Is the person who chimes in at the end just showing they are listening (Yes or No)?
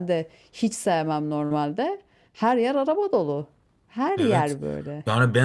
No